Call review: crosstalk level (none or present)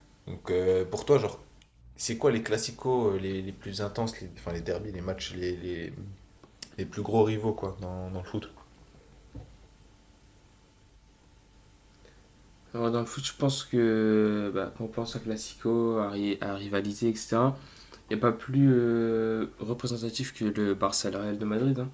none